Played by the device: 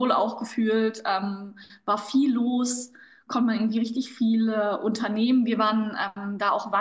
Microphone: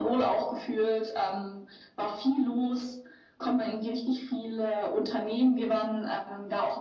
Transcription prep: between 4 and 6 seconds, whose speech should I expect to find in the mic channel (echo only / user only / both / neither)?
echo only